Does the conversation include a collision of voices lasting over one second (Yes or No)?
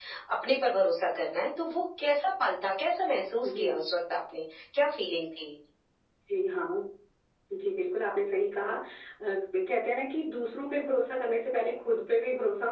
No